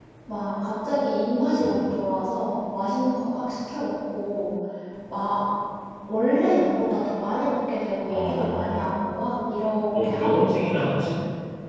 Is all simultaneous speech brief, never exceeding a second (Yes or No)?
No